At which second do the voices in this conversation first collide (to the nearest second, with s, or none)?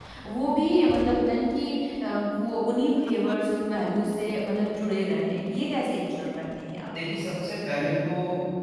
none